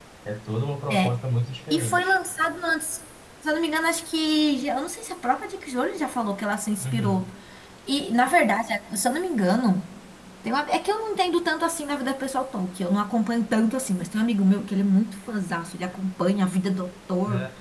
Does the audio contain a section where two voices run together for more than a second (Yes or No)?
No